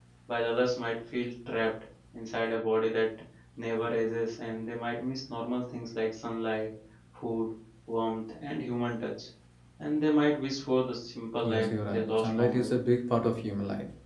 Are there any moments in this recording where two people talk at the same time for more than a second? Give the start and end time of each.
11.4-12.8

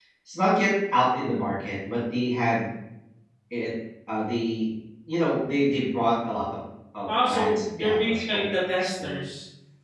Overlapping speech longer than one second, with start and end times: 7.1-9.1

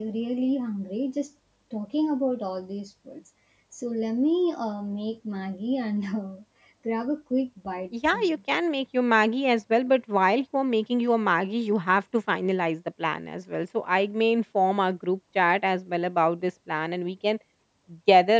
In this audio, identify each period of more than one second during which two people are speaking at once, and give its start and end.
none

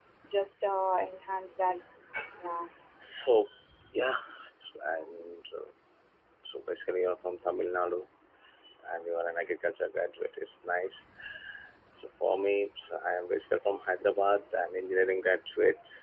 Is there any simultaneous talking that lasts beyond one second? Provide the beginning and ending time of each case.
none

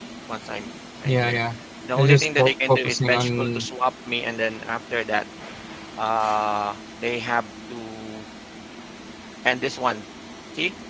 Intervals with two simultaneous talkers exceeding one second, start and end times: 2.0-3.6

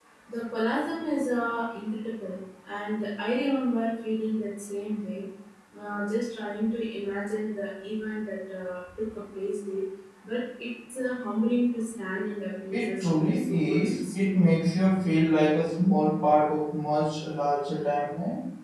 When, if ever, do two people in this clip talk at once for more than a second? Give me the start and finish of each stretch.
12.7-14.3

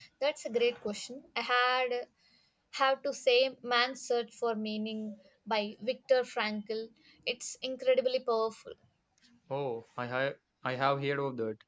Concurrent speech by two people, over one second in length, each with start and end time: none

